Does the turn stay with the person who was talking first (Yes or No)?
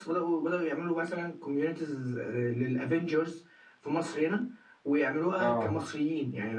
Yes